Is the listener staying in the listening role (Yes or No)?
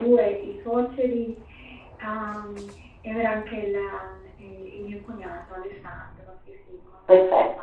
No